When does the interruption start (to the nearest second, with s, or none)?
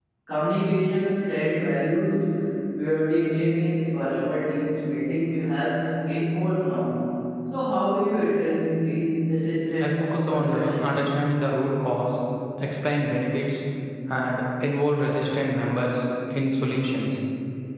10 s